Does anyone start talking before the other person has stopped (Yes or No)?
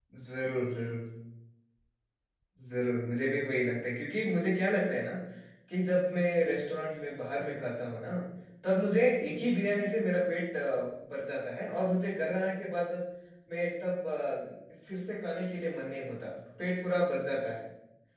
No